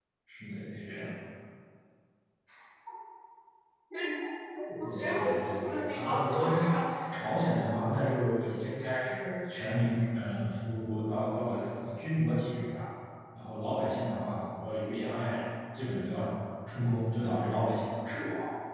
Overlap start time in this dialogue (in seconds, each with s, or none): 4.8 s